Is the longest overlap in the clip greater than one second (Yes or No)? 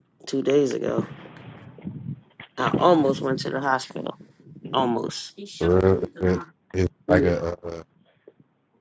No